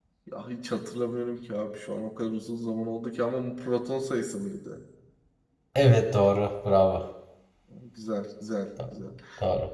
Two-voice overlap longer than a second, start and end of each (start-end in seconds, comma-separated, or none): none